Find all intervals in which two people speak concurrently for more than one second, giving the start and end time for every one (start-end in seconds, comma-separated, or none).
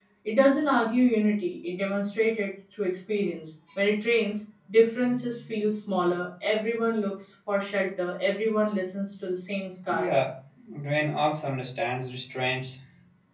none